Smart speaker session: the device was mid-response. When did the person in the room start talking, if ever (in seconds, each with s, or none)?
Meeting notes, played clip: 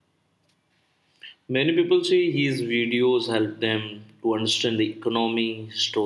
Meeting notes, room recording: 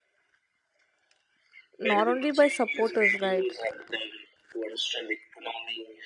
1.8 s